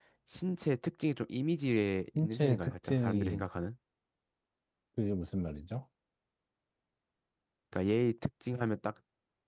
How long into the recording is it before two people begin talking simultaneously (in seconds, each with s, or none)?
2.1 s